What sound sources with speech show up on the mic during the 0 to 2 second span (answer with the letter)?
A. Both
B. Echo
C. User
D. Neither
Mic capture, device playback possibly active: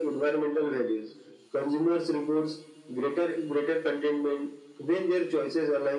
B